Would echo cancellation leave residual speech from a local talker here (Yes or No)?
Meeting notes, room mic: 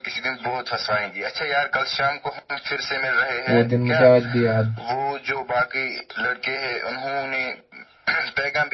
Yes